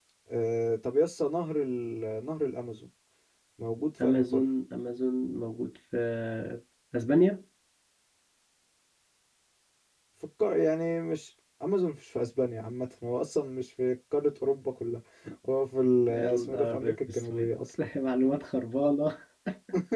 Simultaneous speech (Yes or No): Yes